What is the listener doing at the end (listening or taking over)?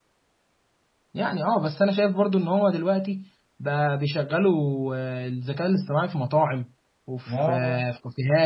listening